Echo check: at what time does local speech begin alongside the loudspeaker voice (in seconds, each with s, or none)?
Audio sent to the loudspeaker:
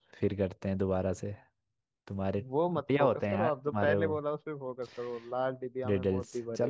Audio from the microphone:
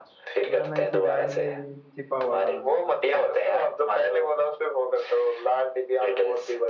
0.4 s